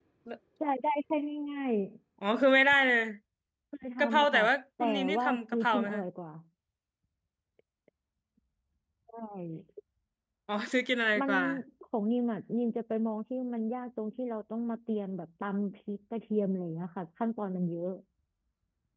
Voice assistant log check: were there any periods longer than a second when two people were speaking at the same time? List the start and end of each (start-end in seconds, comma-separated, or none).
4.8-6.0